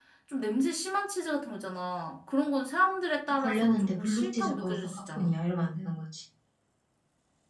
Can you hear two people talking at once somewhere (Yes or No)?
Yes